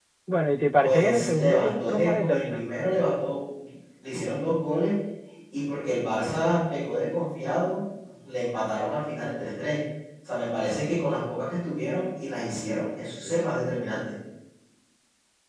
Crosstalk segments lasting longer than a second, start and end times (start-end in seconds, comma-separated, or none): 0.8-2.7